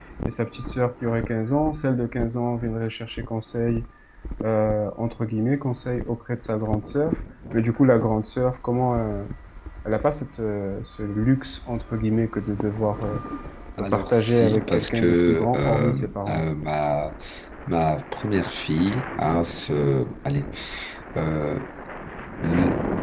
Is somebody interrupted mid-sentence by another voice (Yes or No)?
Yes